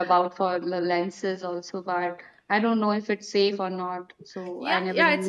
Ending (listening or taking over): taking over